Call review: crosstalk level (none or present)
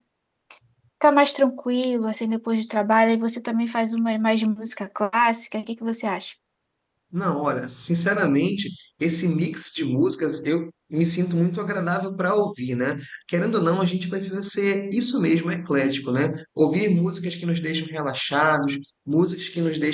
none